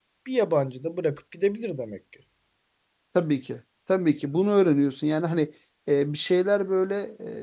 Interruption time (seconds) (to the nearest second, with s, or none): none